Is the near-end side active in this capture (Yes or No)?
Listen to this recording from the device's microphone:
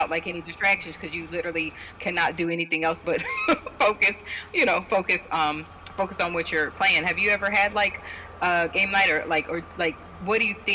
No